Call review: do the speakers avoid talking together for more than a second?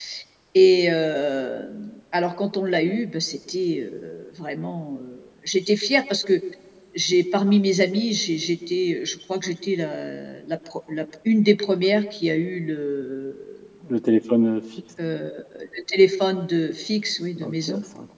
Yes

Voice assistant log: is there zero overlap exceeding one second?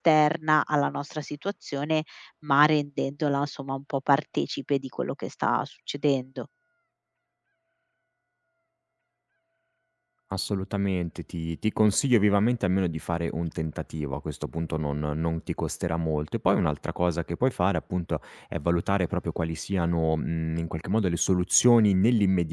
Yes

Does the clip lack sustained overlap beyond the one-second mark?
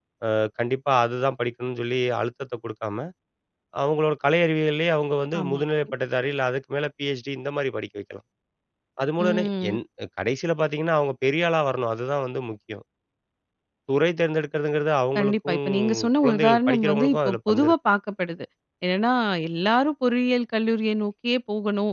No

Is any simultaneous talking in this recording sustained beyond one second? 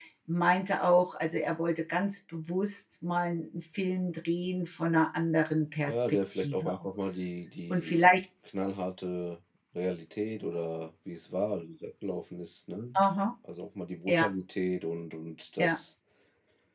Yes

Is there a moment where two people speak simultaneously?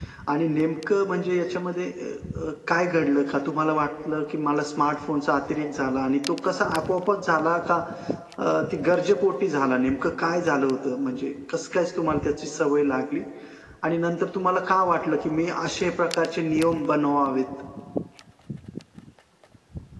No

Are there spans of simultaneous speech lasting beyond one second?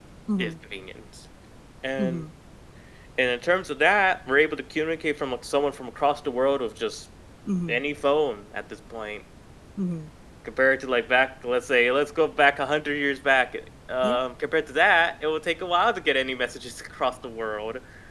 No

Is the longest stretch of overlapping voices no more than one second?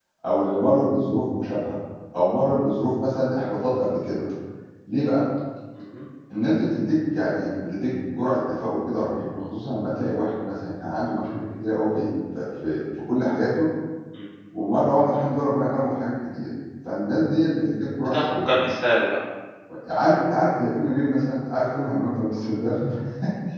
Yes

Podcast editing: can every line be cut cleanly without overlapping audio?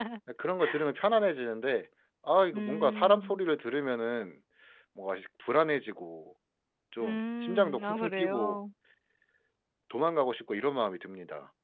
No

